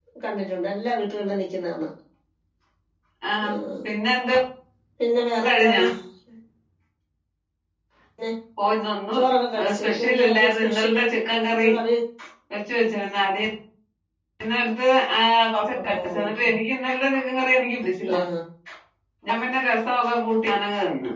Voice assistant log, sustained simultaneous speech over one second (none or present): present